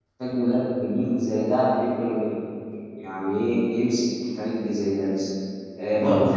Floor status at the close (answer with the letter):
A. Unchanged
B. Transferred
A